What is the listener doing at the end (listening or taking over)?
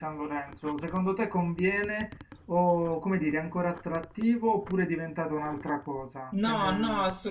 taking over